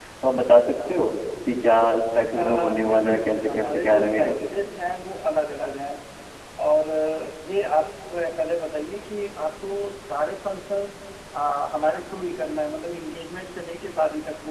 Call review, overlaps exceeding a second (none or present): present